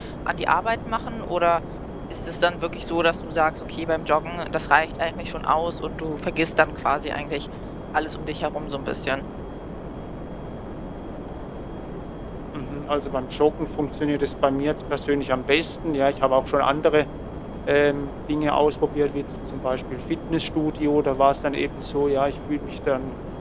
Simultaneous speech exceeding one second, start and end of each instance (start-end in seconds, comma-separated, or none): none